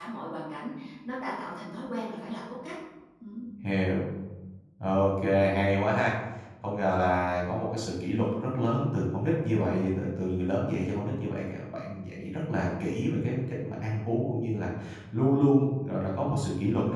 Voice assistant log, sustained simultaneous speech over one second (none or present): none